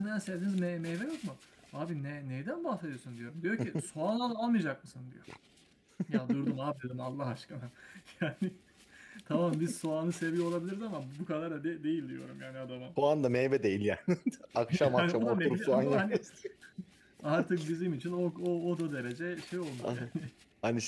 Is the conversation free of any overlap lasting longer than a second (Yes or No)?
No